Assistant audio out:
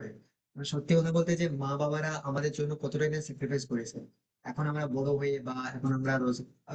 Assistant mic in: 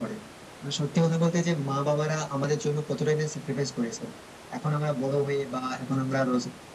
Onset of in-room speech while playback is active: none

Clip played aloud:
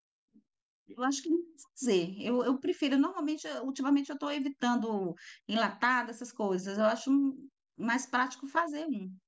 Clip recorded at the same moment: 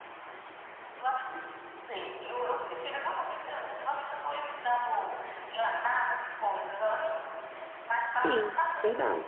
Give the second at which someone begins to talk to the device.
8 s

